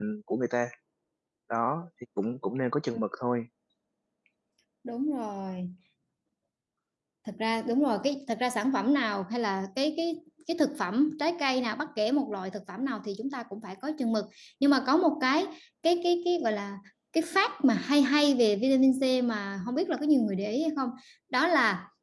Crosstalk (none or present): none